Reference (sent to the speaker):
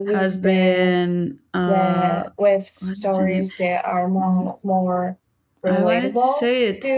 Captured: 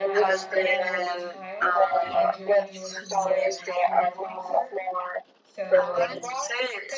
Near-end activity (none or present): present